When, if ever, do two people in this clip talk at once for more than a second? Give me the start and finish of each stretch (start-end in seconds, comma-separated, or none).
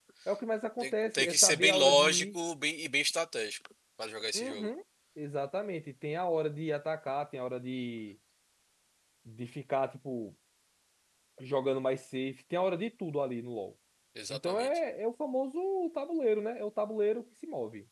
0.8-2.2